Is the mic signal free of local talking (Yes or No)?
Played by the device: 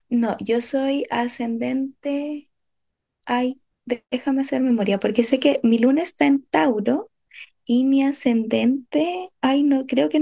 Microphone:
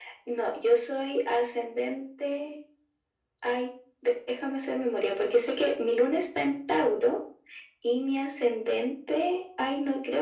Yes